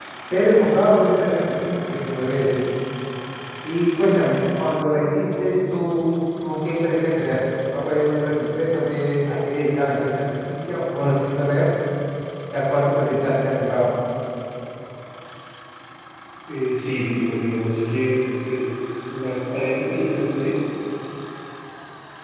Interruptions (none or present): none